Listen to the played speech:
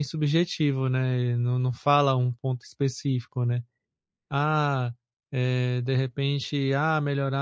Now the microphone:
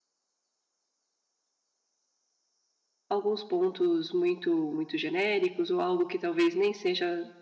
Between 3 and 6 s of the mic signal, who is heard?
user only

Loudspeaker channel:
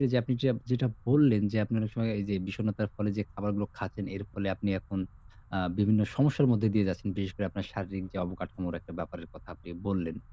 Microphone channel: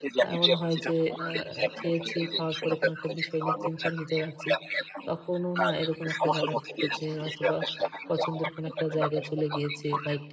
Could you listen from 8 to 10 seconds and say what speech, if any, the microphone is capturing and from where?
both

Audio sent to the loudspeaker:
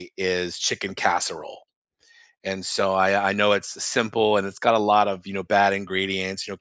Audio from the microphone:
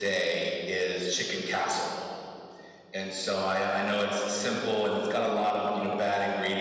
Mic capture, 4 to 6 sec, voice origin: echo only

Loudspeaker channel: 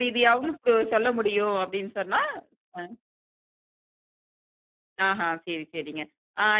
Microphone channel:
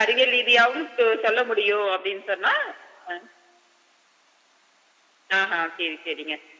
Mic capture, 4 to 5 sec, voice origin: neither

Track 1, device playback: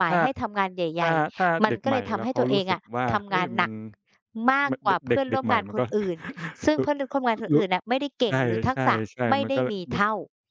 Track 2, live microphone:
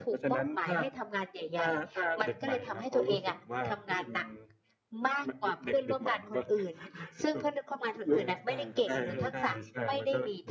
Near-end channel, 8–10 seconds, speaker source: both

